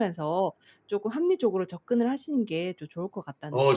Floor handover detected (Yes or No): Yes